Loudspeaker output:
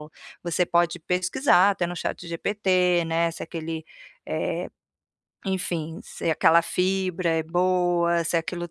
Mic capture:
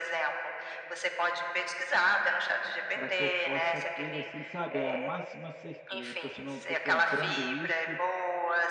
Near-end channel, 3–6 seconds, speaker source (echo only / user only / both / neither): both